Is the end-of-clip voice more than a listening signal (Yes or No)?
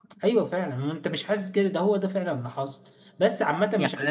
Yes